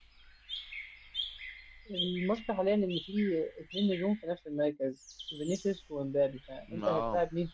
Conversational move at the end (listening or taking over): listening